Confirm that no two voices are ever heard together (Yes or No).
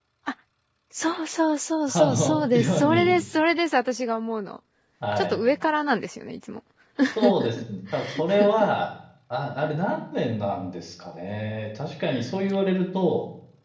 No